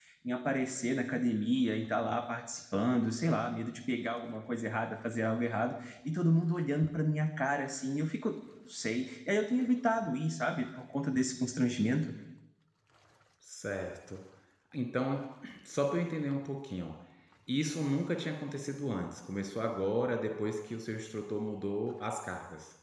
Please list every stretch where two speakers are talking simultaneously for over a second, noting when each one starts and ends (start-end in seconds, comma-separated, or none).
none